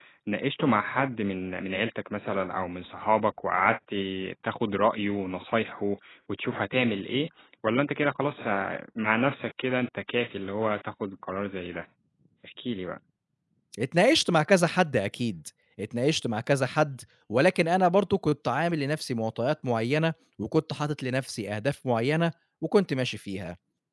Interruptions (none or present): none